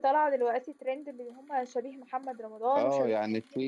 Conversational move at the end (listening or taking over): taking over